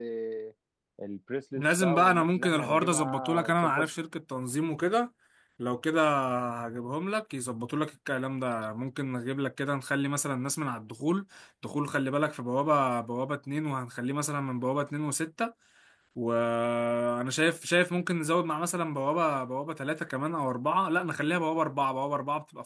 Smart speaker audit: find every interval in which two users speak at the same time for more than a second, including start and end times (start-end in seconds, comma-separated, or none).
1.6-3.9